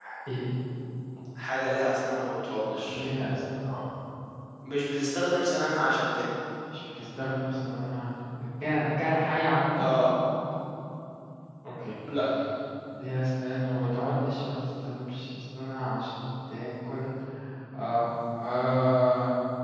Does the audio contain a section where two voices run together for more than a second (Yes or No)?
No